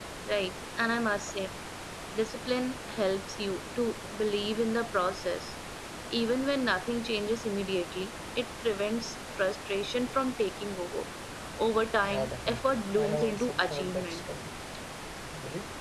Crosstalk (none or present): present